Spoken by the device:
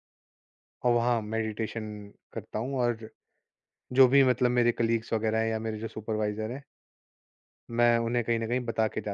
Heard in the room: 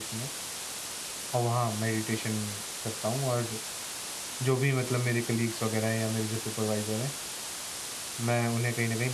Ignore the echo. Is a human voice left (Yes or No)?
No